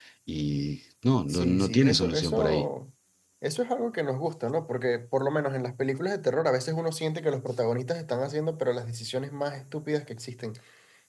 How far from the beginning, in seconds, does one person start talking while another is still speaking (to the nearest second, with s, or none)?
1 s